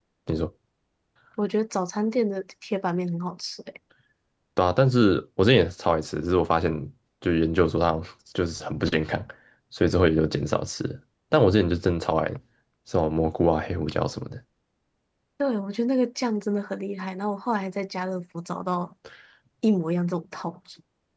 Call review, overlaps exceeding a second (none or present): none